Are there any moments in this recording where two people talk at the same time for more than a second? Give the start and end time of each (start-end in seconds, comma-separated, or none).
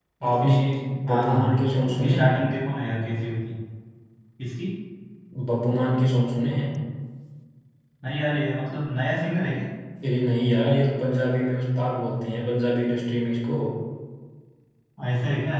1.1-2.3